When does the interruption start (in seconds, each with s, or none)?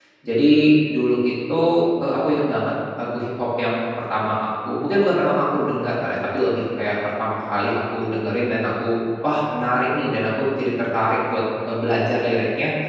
none